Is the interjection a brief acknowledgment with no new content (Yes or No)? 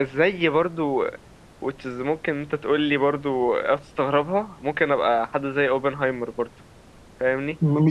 No